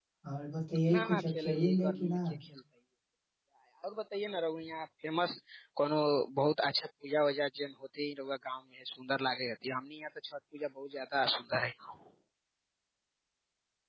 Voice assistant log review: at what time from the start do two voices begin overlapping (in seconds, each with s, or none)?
0.9 s